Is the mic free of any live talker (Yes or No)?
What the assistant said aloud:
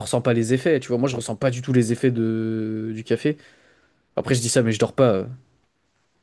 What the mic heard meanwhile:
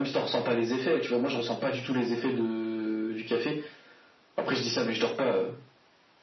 Yes